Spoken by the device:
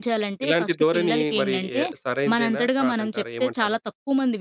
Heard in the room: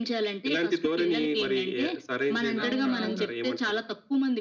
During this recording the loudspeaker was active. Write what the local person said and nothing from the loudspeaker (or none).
అవును. అవును.